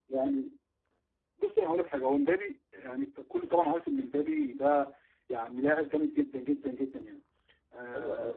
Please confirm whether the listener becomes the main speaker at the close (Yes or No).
Yes